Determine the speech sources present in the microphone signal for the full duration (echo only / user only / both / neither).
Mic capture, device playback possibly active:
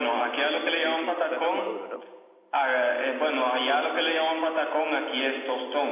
both